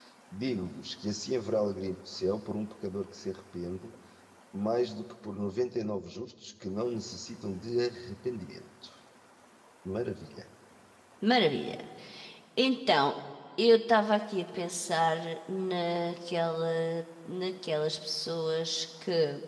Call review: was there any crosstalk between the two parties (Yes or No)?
No